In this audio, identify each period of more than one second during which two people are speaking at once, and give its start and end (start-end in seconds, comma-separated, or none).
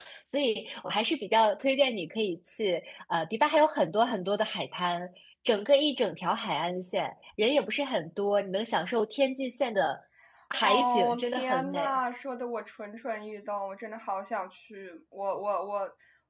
10.6-12.0